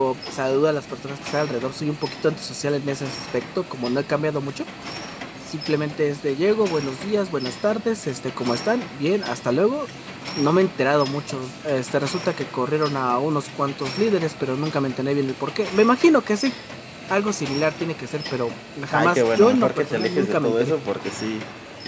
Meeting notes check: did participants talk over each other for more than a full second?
Yes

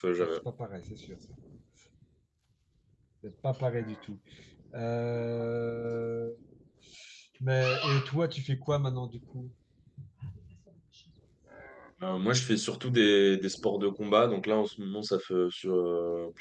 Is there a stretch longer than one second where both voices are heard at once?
No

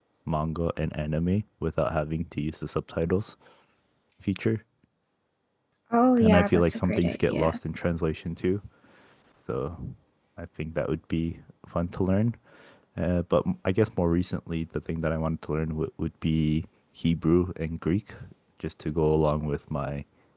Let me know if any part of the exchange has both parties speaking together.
Yes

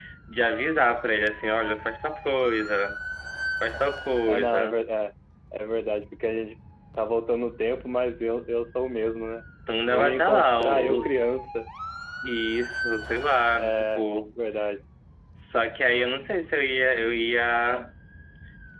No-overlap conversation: No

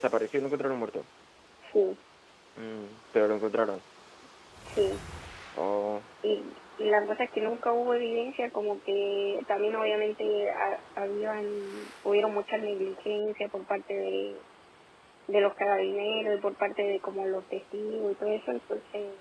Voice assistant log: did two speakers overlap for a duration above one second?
No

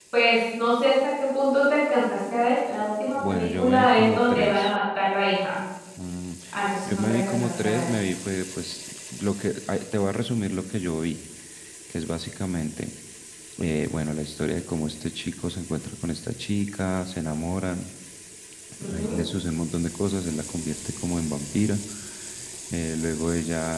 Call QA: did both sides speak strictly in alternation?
No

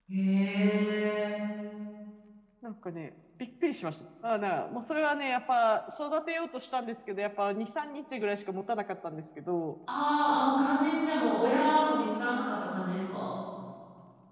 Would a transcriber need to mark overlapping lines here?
No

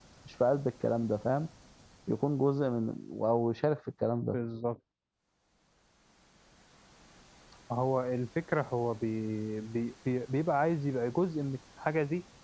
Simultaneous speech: No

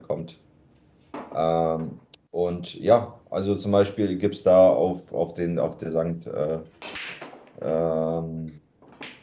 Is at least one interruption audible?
No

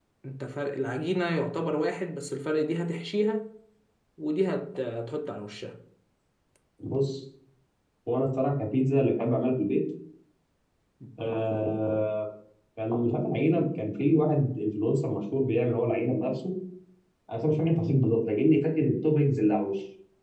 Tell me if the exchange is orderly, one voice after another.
Yes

